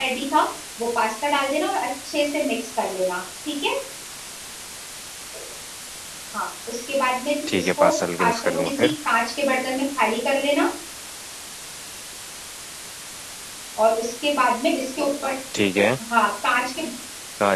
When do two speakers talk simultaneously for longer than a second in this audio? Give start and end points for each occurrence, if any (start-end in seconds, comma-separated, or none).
7.5-8.9